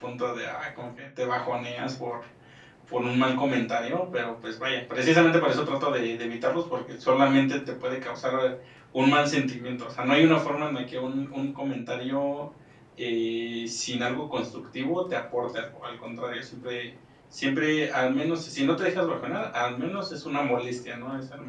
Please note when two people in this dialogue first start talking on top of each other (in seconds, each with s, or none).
none